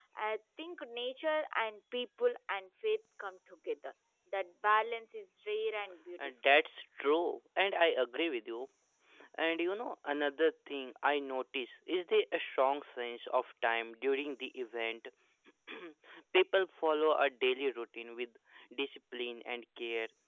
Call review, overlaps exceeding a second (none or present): none